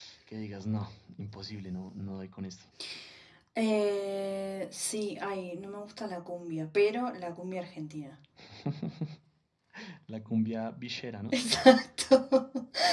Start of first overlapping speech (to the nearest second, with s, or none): none